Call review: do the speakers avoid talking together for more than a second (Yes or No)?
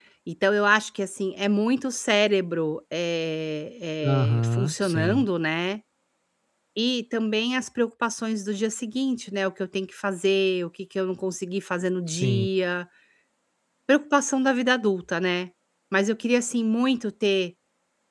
No